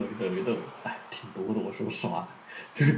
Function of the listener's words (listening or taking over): listening